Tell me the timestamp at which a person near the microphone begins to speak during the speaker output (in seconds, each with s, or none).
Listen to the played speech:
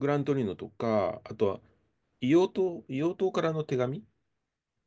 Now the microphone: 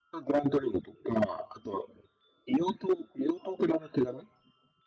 none